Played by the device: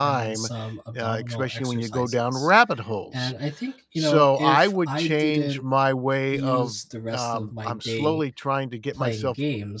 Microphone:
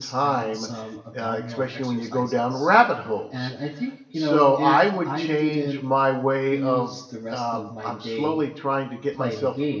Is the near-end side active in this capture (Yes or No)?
No